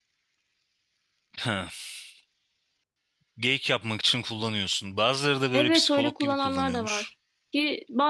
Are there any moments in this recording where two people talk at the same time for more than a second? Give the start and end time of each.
5.5-7.1

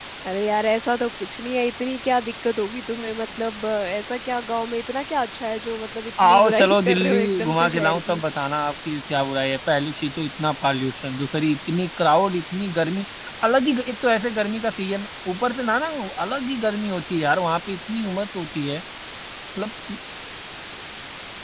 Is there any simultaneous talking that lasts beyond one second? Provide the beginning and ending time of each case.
6.2-8.2

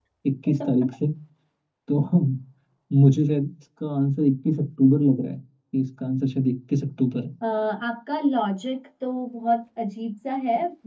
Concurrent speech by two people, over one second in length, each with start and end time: none

